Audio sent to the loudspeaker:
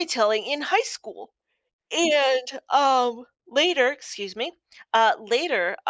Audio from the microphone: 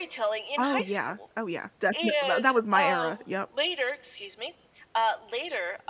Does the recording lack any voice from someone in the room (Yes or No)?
No